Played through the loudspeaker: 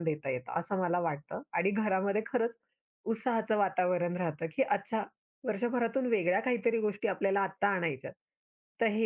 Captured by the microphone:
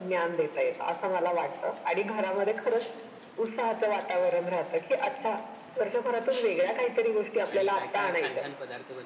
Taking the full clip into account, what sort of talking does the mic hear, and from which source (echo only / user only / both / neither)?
both